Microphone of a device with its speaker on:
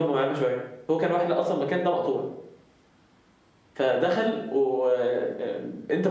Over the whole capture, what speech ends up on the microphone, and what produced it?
echo only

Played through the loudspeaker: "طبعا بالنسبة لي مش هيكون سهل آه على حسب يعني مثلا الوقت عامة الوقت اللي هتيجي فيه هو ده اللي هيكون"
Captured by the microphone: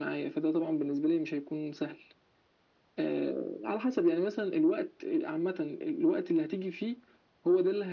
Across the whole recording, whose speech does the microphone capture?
echo only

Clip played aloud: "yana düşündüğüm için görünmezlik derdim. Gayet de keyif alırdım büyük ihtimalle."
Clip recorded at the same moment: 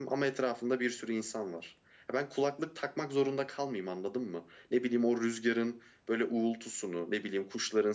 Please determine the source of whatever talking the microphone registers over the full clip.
user only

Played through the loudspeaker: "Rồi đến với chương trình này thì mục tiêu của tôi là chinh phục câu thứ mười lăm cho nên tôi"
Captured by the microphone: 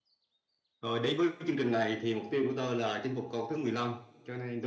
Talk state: echo only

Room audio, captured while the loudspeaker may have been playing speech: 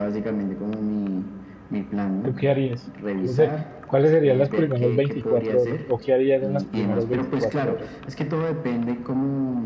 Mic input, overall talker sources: both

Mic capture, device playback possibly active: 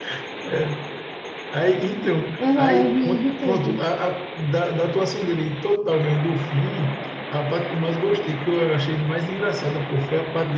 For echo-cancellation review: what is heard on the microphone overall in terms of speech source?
both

